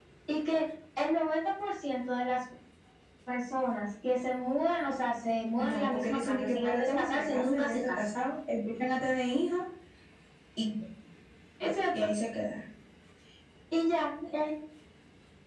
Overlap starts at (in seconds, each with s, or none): 5.6 s